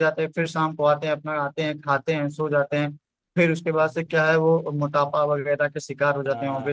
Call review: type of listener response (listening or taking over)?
taking over